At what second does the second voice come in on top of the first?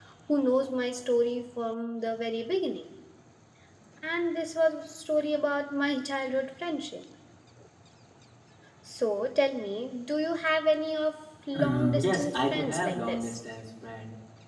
11.5 s

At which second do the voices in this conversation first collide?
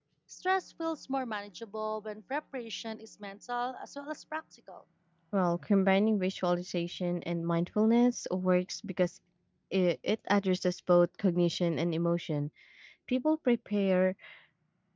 none

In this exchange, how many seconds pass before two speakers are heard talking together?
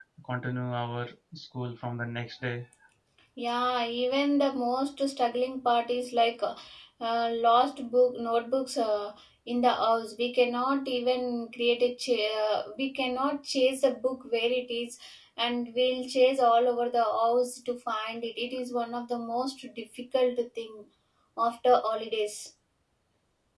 none

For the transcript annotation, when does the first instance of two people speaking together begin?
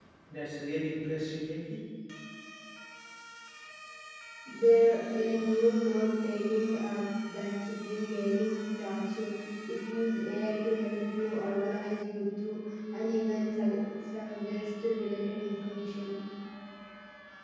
none

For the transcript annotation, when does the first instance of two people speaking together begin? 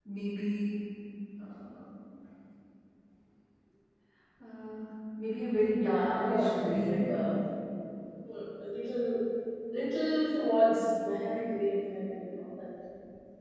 5.8 s

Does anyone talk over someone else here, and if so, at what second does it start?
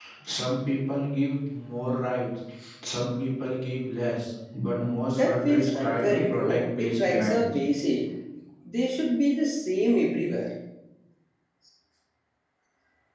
5.1 s

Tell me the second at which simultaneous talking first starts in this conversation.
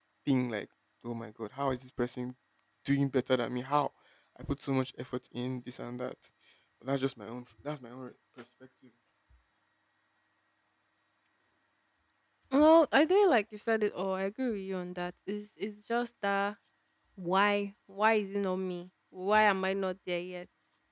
none

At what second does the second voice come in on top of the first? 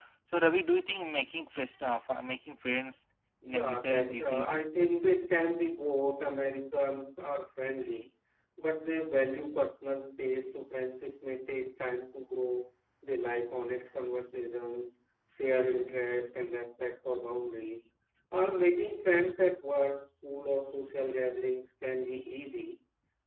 3.4 s

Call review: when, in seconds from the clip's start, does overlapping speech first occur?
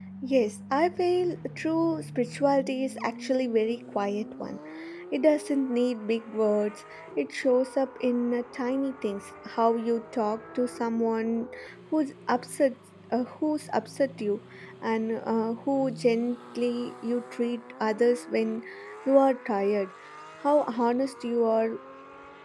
none

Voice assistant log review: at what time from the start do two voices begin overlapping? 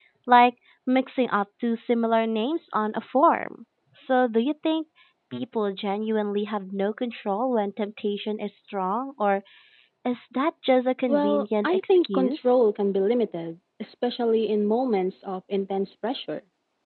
11.1 s

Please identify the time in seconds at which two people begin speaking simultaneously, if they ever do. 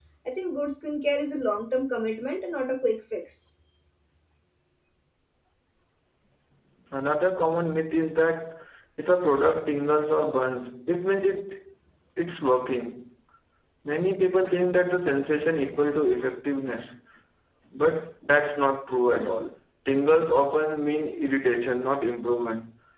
none

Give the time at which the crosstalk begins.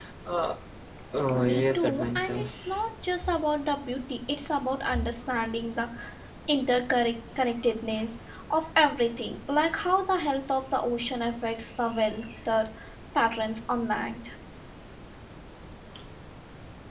1.4 s

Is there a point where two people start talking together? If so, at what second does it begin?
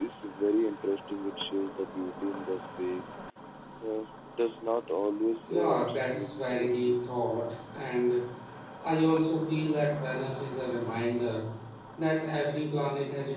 5.5 s

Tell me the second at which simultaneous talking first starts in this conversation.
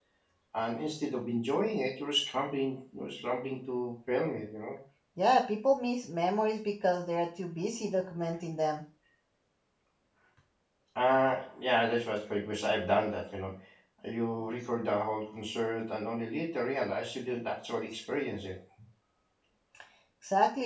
none

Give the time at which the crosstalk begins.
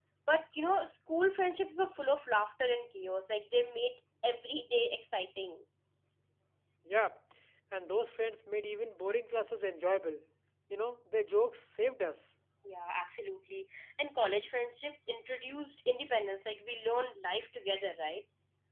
none

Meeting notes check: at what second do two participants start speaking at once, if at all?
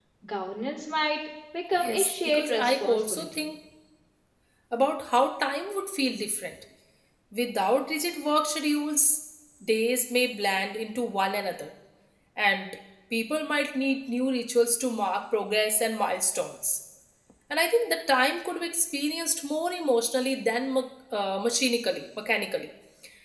1.8 s

